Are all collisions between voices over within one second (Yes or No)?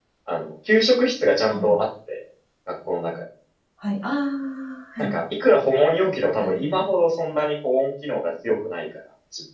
Yes